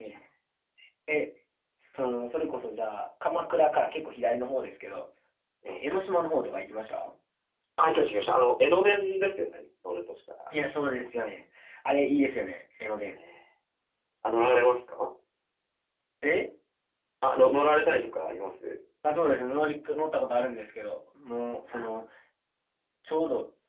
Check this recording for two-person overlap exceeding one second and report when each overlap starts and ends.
none

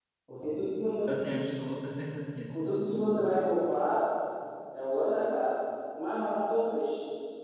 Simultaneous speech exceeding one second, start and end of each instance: none

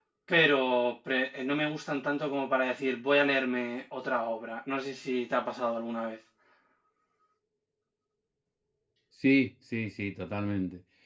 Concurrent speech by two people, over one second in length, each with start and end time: none

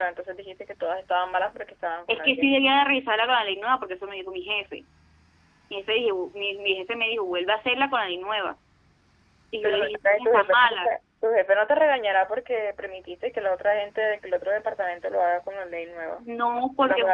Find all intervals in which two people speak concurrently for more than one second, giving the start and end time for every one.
9.6-11.0

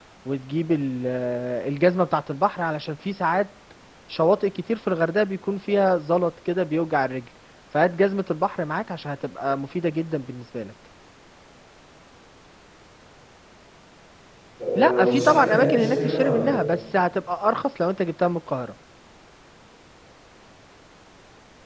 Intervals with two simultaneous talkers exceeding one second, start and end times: 14.8-16.5

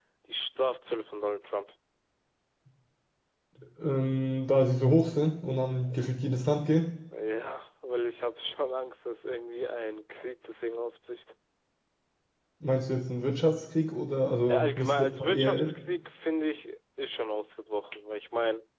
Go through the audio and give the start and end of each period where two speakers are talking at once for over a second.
14.5-15.7

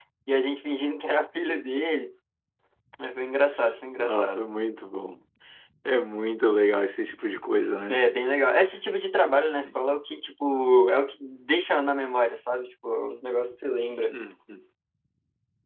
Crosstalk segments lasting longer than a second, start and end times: none

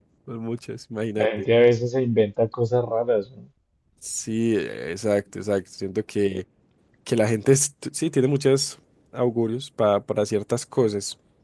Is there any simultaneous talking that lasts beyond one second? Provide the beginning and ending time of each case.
none

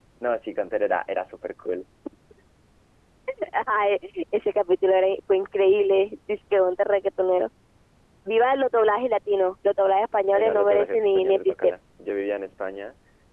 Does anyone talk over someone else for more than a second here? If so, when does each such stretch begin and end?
10.3-11.7

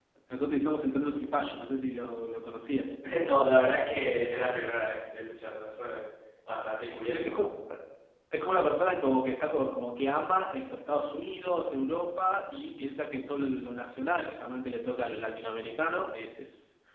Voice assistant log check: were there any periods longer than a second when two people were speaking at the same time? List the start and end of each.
none

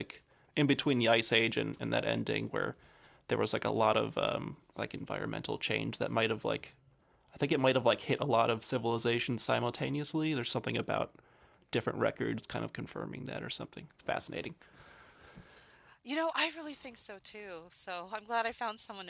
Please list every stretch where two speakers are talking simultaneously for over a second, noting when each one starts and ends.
none

